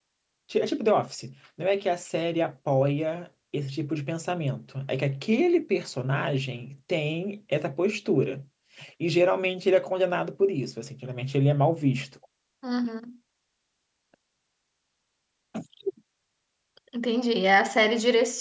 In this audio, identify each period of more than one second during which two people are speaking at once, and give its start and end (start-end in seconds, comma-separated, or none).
none